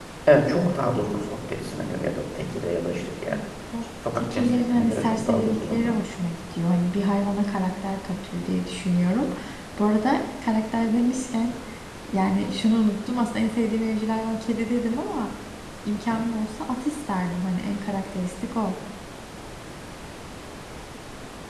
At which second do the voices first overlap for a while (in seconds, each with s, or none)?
4.2 s